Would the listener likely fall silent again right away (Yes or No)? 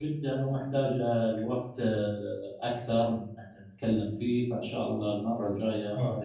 No